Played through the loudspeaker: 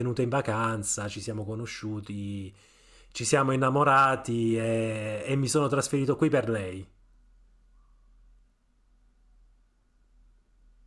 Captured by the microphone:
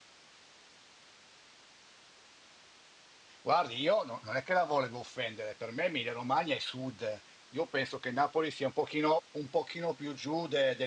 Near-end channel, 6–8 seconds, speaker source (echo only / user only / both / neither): user only